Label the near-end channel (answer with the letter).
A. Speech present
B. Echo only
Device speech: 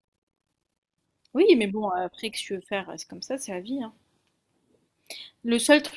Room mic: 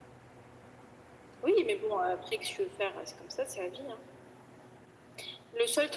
B